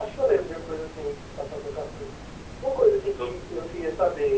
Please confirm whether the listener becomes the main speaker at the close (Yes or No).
No